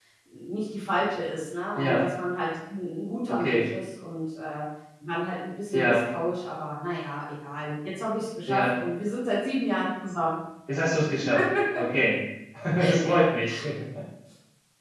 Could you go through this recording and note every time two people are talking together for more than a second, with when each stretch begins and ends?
none

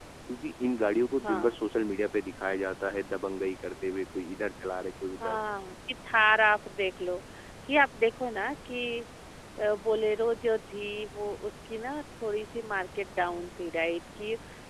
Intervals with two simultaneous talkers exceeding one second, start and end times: none

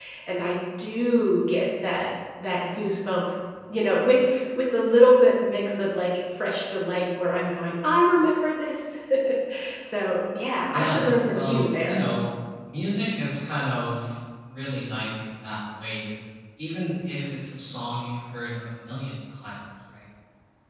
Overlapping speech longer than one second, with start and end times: 10.7-12.0

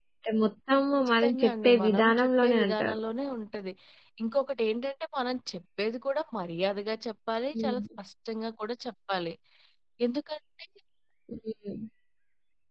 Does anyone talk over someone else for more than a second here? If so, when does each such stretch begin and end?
1.2-3.0

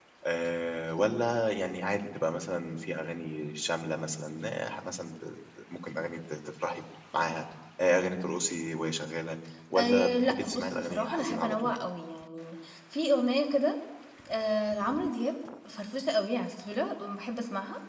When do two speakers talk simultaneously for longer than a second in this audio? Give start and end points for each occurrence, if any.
9.8-11.8

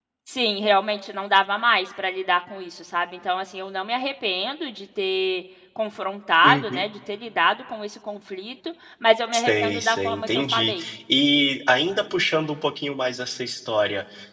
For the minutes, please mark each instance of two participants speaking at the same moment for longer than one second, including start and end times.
9.3-10.8

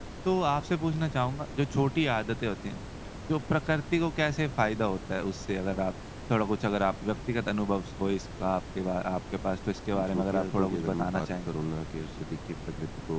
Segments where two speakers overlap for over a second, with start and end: 9.9-11.3

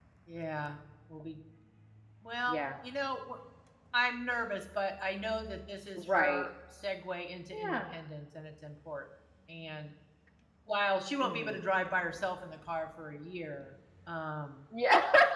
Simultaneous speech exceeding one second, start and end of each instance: none

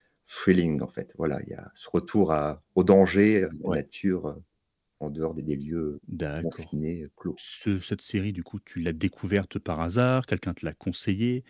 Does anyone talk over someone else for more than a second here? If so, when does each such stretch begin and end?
none

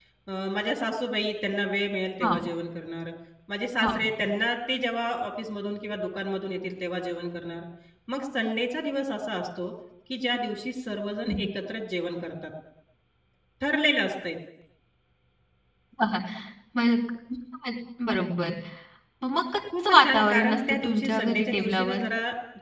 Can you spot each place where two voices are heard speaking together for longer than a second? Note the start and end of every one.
19.9-22.0

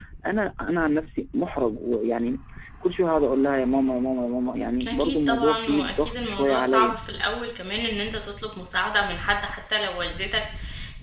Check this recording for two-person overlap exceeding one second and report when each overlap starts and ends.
4.9-7.0

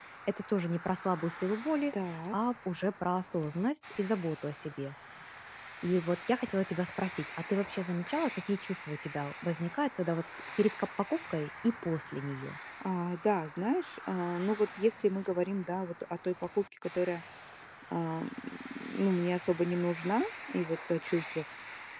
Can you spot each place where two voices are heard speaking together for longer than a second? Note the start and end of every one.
none

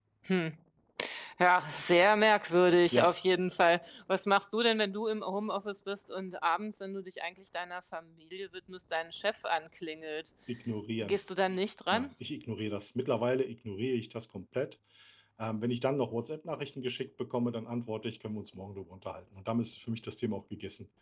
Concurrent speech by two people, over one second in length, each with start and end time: none

